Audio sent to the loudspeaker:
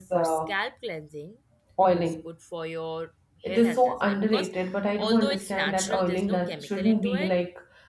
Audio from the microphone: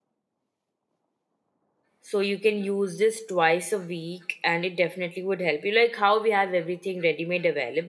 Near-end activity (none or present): present